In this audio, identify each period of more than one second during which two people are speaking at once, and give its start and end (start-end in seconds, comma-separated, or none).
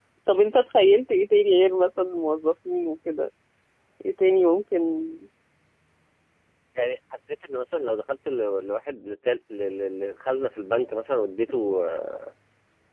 none